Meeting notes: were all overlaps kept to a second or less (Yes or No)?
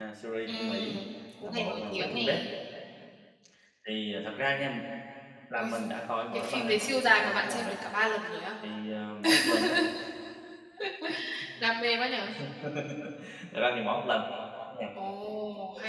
No